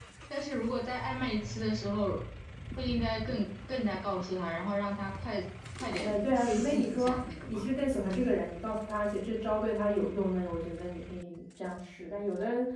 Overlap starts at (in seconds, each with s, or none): 6.0 s